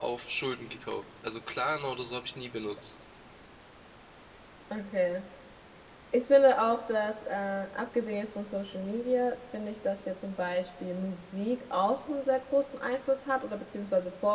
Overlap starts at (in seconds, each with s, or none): none